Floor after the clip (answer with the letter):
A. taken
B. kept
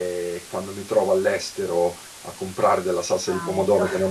B